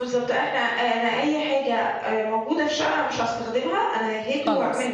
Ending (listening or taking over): taking over